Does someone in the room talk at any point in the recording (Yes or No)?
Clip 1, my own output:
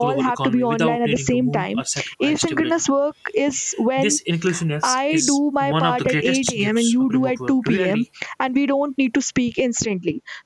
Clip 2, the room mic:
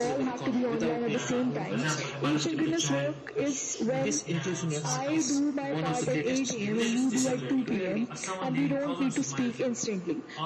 Yes